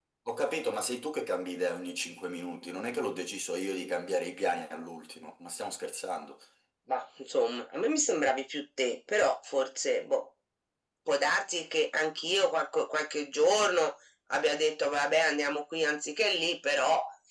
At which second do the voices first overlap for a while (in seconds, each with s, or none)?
none